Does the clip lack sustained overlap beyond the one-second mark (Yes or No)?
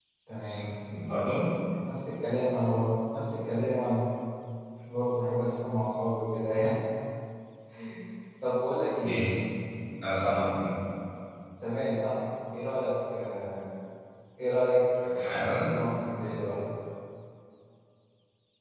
Yes